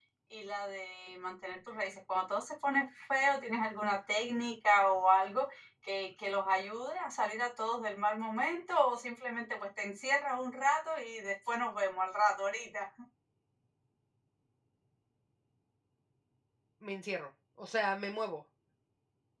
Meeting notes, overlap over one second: none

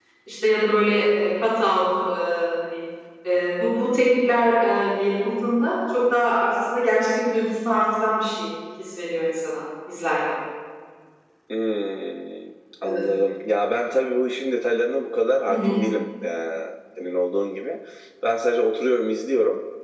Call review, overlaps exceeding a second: none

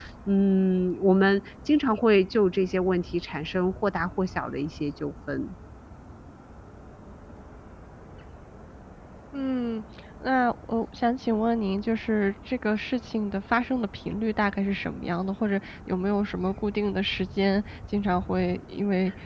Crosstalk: none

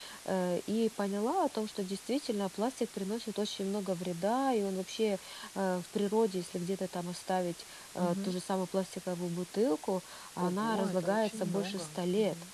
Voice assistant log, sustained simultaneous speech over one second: present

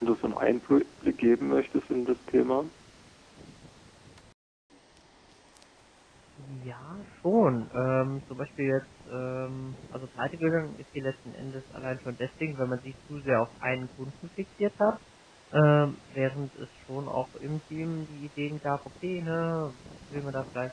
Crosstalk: none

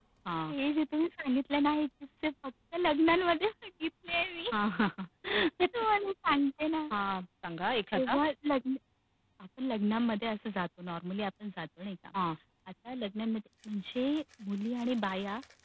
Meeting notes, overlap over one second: none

